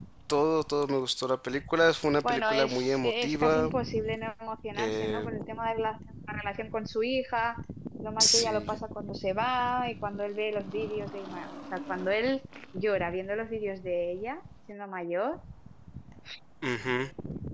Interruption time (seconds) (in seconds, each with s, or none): 2.2 s